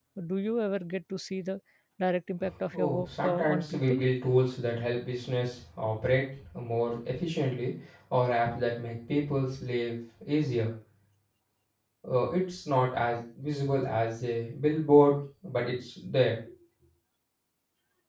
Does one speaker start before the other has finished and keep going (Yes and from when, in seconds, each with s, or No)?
Yes, from 2.7 s